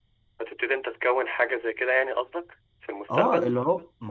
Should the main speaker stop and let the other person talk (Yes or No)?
Yes